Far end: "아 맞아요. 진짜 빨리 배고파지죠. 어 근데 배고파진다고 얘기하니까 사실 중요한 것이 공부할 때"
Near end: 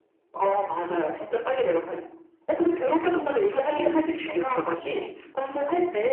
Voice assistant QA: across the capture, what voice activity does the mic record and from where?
both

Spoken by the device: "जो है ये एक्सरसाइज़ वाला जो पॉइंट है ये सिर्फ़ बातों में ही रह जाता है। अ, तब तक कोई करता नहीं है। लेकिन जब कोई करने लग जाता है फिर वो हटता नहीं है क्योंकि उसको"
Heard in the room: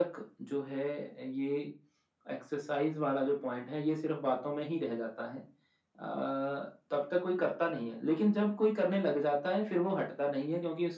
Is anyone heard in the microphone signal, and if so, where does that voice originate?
echo only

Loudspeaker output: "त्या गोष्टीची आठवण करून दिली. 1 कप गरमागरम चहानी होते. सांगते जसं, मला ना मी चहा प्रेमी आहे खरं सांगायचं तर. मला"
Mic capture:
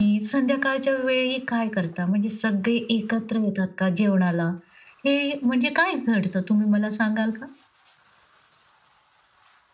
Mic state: user only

